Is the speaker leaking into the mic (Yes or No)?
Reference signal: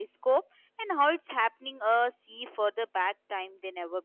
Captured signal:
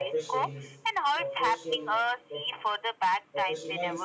Yes